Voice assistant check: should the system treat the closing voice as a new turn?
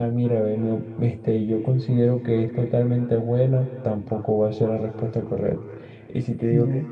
No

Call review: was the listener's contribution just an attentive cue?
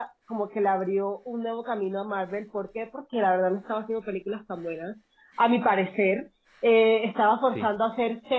Yes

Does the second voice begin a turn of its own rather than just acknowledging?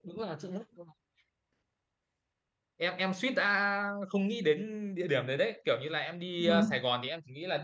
No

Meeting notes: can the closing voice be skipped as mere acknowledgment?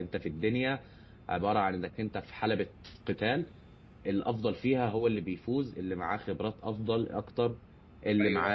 No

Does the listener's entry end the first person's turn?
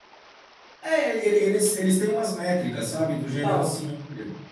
No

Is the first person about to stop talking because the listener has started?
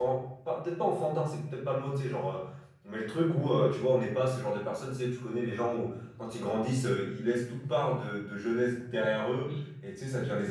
No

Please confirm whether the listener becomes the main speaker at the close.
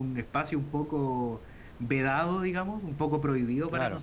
No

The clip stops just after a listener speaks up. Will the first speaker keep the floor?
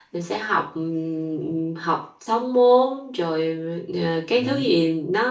Yes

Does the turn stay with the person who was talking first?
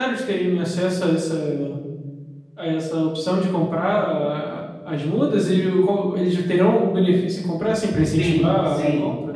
No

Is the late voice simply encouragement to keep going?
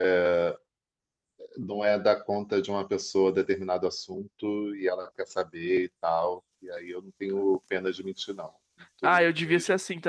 No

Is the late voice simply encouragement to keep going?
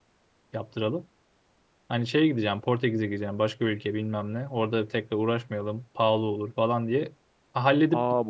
No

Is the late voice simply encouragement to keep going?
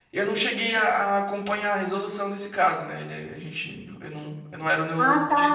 No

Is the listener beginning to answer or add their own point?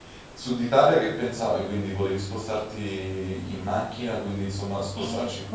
Yes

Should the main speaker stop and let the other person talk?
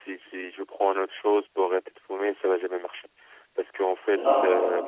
No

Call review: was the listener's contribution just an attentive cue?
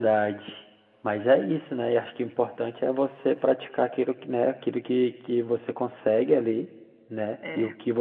Yes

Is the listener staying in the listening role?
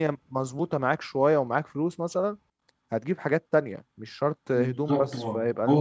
No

